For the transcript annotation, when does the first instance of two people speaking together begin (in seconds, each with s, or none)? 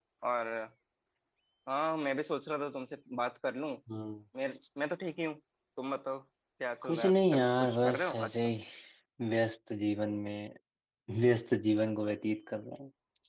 6.8 s